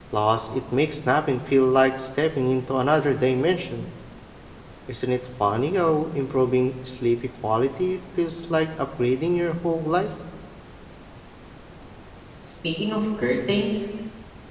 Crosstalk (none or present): none